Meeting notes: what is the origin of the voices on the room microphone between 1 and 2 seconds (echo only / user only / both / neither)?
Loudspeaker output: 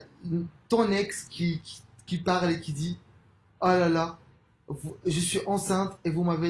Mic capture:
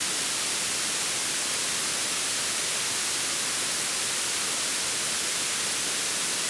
neither